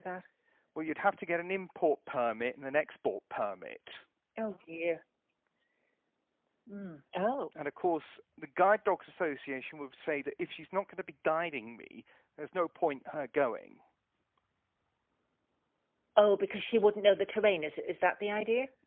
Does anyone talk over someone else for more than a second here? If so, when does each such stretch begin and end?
none

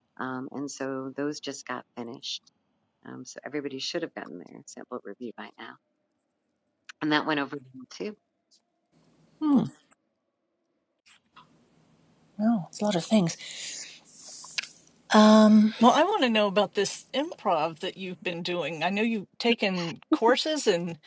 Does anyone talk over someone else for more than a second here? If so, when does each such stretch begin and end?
none

